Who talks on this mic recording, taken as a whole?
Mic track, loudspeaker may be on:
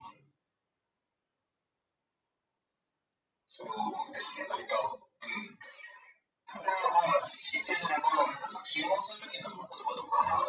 echo only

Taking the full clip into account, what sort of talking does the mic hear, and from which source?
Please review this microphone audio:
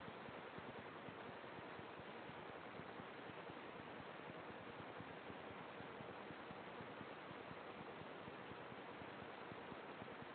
neither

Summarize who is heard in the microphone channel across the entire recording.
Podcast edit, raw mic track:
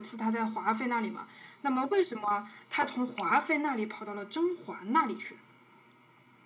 echo only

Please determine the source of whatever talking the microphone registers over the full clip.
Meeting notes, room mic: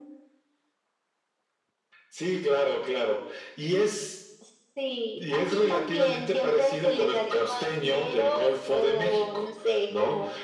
both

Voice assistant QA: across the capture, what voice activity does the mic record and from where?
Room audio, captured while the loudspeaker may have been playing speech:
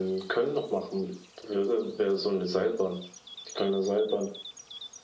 echo only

